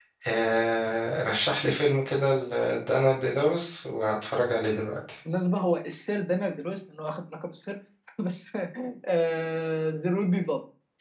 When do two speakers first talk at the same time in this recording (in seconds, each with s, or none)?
none